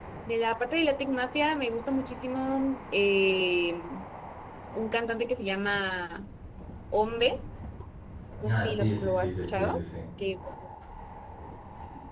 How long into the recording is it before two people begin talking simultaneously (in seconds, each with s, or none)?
8.5 s